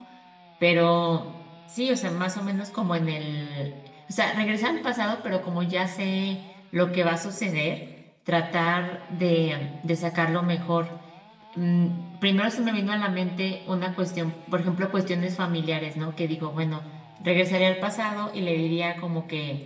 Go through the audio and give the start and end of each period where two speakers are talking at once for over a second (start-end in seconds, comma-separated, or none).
none